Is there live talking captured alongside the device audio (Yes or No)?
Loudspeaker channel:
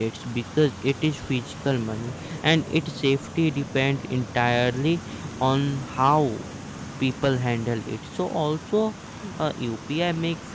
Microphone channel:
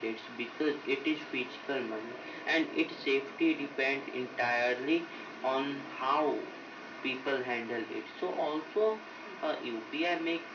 No